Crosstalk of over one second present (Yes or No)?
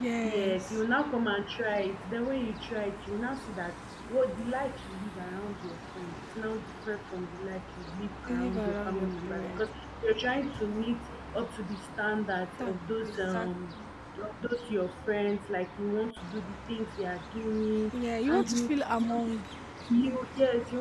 Yes